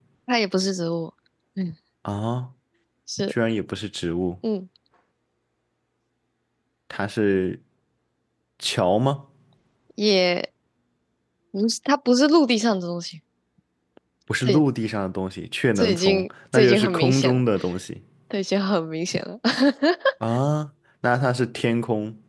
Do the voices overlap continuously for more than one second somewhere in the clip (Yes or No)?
Yes